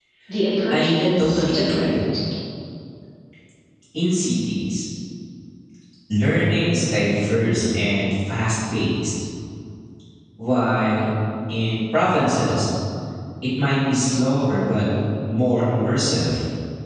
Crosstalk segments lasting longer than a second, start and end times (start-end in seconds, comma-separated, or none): 0.7-2.0